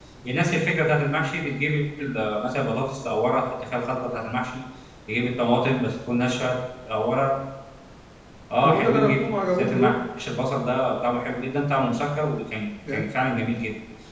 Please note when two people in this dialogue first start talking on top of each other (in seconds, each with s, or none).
8.6 s